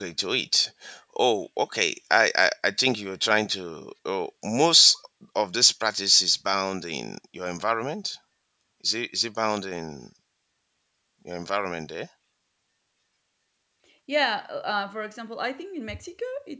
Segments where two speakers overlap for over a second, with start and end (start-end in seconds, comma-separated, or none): none